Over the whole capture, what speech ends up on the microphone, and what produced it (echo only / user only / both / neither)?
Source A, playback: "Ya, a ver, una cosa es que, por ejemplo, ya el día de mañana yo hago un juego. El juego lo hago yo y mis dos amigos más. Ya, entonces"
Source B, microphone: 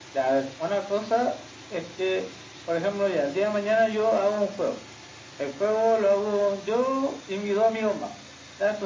echo only